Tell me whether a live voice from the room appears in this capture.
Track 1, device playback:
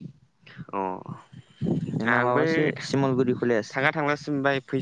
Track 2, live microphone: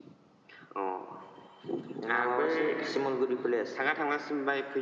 No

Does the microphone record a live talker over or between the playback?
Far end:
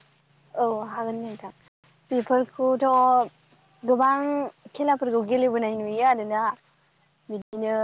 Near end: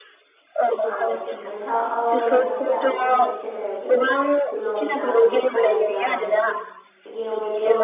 Yes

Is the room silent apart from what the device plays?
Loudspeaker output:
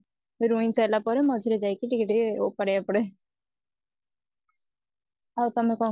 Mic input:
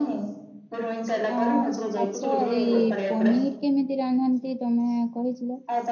No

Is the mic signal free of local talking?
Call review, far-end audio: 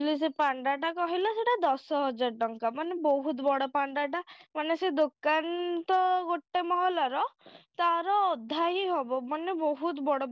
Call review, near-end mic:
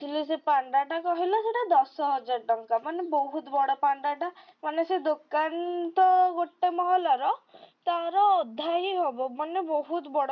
Yes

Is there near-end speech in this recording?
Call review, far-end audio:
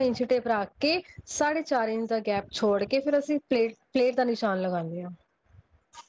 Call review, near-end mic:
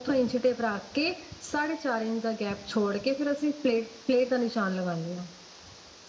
No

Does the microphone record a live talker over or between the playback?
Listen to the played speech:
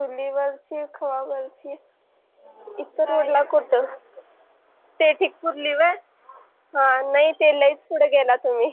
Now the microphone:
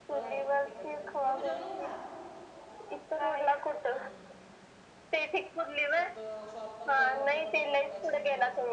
Yes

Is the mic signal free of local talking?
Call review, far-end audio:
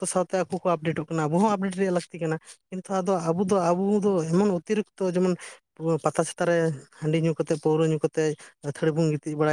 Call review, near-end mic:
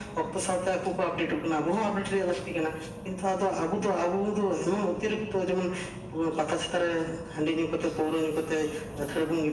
Yes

